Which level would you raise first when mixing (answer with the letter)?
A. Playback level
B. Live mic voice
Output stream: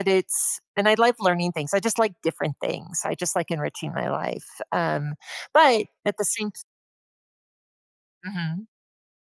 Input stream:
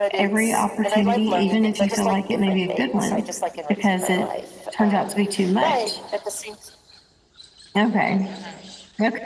A